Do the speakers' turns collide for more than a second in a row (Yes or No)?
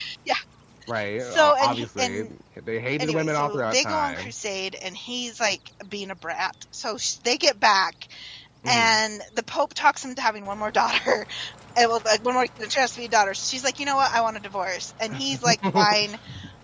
Yes